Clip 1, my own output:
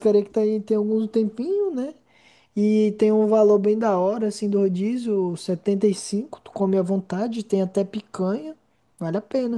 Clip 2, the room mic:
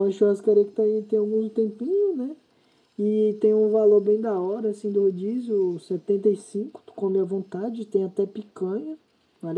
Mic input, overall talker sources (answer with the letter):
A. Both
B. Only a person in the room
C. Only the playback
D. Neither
C